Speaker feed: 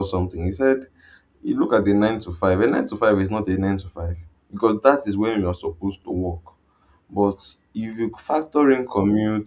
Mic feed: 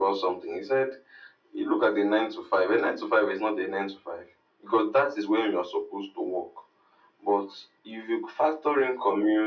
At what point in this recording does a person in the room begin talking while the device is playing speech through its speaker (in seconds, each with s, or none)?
none